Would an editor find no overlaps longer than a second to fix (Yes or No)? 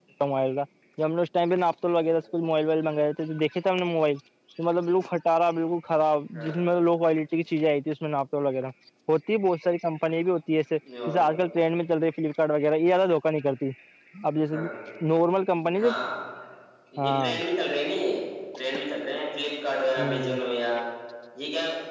Yes